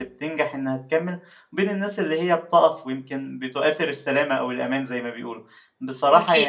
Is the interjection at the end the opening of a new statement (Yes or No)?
No